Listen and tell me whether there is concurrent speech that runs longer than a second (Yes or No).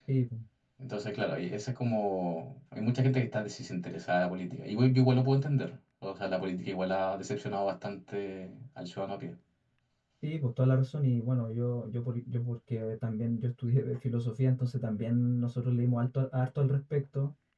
No